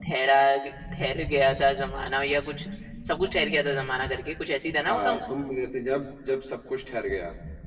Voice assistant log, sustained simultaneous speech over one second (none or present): none